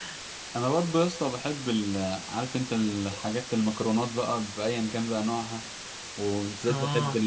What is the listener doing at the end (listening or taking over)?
listening